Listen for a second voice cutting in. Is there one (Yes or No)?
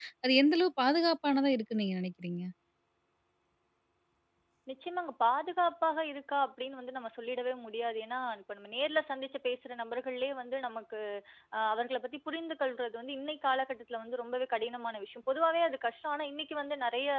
No